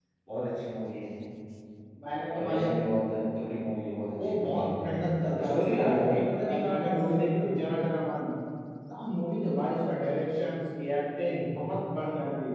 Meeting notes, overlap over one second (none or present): present